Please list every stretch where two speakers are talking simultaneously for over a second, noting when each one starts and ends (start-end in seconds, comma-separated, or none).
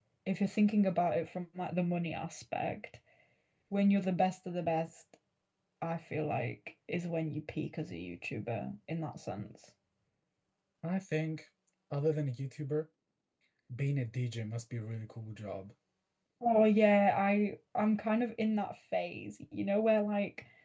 none